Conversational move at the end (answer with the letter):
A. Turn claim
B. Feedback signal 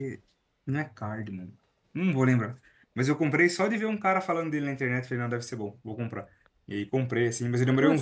B